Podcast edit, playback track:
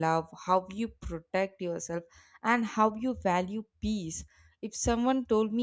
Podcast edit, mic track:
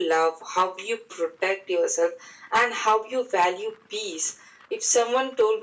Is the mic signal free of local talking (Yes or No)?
Yes